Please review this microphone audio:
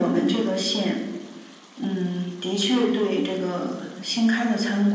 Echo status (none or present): present